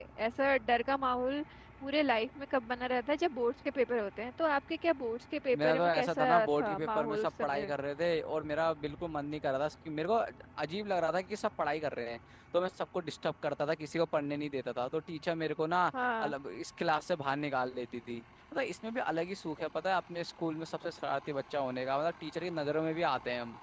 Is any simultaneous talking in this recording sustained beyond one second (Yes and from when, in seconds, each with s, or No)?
Yes, from 5.5 s